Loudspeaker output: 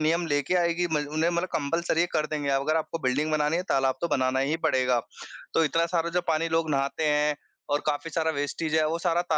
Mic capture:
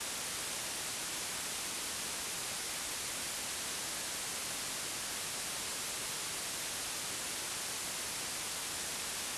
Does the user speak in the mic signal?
No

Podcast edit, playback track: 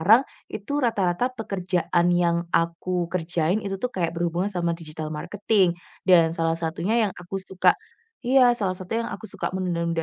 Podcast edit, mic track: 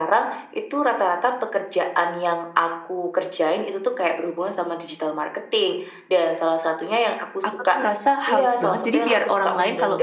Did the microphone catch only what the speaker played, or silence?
No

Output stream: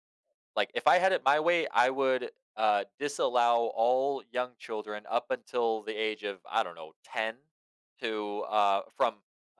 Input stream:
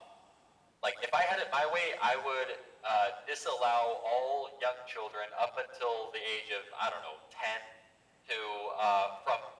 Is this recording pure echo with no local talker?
Yes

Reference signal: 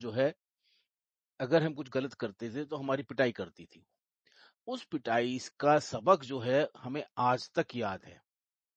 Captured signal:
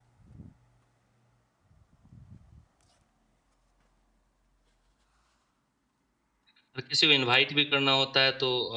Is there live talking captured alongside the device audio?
Yes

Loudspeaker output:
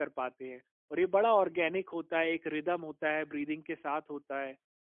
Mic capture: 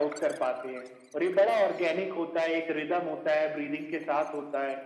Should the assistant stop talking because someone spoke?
No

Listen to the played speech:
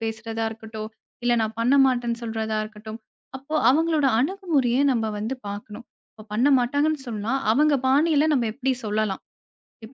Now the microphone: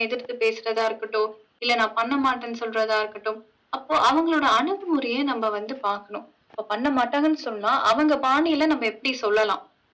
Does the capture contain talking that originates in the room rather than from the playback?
No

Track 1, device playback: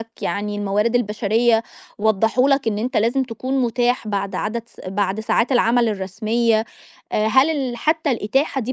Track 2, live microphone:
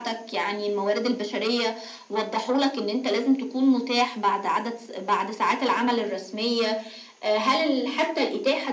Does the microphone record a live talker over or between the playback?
No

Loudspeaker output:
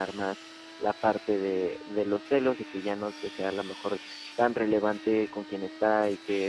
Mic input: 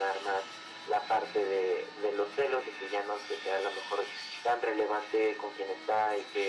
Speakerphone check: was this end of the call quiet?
Yes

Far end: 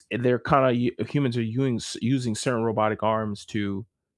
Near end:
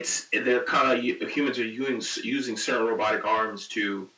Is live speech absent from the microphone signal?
Yes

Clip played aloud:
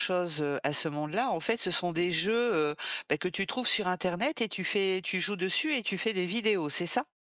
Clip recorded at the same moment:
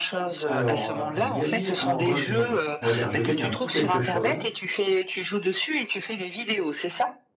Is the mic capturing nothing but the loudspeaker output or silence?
No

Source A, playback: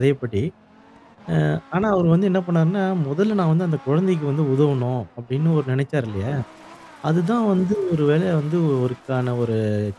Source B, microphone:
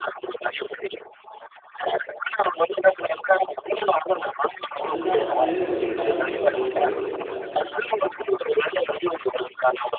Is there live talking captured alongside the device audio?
Yes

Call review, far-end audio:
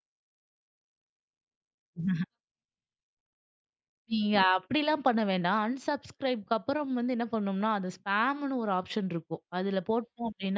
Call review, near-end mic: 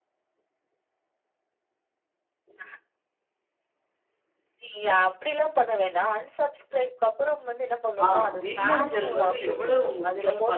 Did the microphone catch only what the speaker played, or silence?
No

